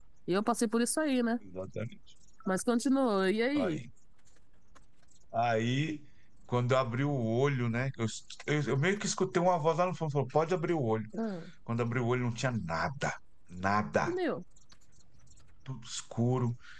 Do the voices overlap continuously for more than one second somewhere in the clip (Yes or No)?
No